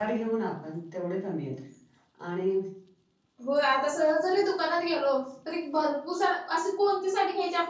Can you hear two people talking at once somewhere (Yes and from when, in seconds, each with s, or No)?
No